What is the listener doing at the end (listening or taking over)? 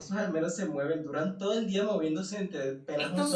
listening